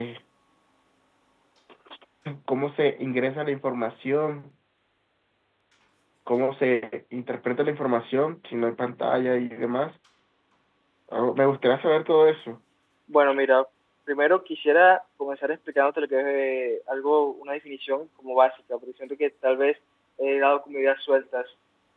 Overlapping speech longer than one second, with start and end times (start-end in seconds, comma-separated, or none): none